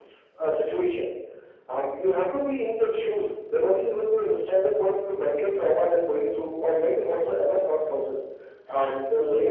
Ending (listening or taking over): listening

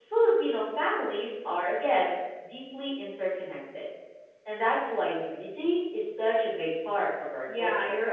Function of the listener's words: taking over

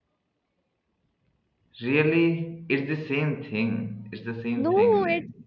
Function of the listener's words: taking over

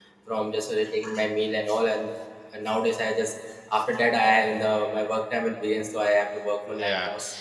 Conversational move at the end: taking over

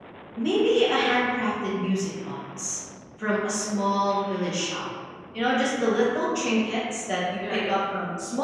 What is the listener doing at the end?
listening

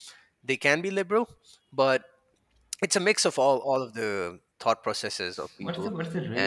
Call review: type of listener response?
taking over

